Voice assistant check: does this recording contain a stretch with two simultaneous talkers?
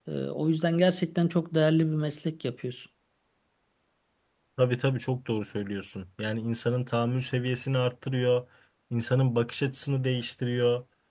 No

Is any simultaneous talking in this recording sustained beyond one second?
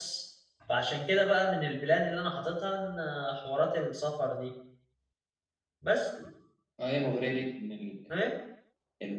No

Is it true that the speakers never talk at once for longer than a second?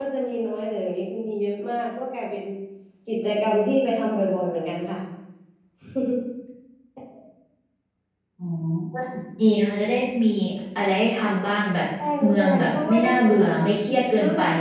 No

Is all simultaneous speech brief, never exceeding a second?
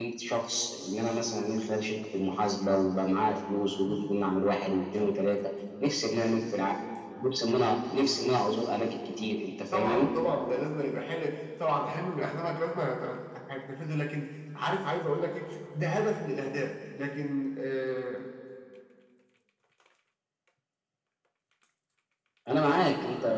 Yes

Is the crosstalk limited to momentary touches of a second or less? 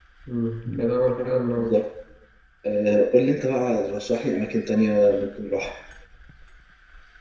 Yes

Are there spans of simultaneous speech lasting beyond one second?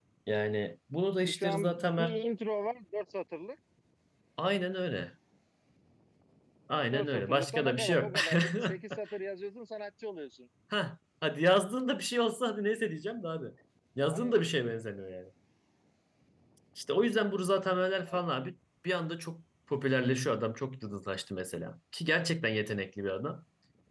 Yes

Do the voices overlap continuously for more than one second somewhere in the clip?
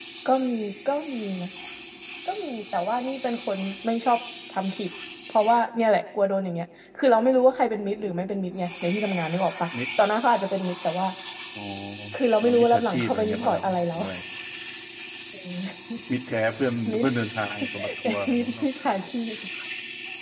Yes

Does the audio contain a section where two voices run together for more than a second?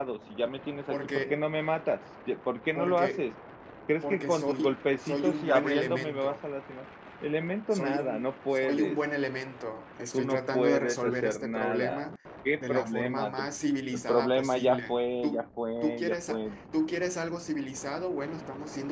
Yes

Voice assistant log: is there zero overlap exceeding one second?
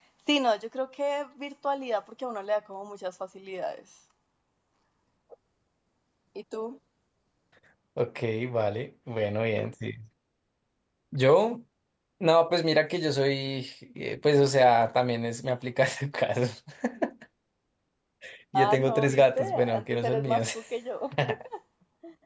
No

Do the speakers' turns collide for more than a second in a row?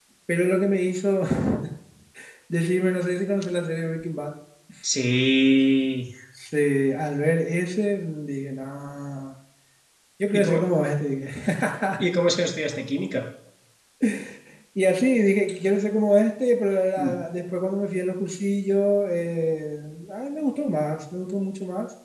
No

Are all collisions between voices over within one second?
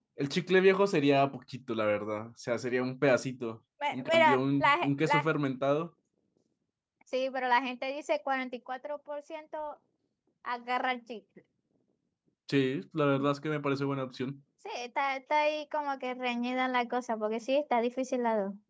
No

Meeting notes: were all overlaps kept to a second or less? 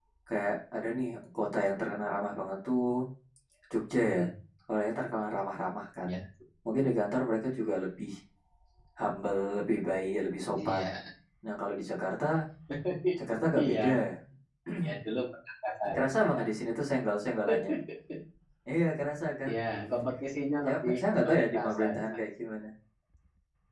No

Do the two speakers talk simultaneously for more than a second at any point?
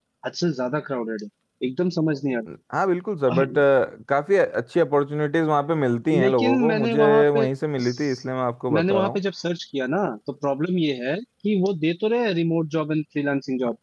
Yes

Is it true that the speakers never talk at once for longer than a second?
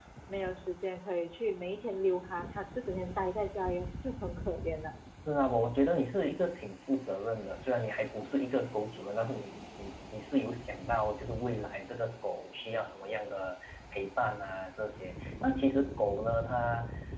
Yes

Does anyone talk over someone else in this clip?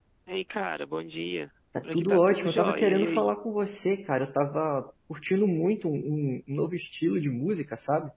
Yes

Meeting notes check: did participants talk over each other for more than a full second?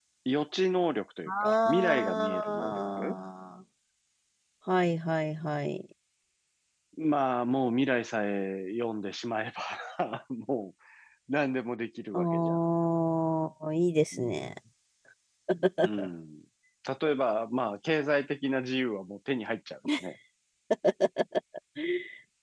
Yes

